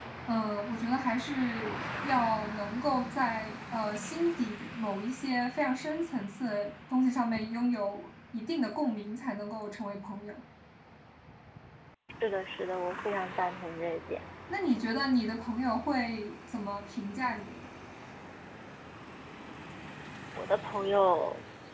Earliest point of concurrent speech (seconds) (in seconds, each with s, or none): none